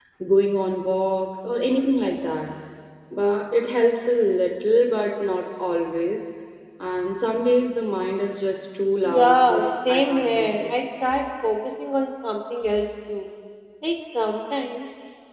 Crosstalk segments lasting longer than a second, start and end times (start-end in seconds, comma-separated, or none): 9.0-10.6